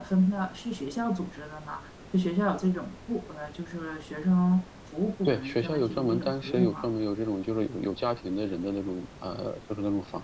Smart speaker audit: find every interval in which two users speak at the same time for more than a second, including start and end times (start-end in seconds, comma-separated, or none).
5.2-6.9